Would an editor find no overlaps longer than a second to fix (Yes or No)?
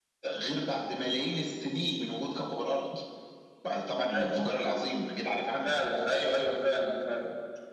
Yes